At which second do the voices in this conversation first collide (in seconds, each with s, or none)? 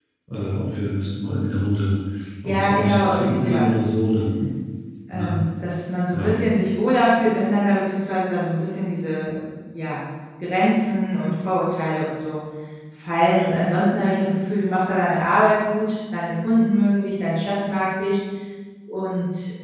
2.5 s